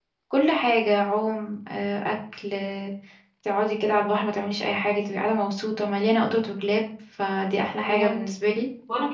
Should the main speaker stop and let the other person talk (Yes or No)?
Yes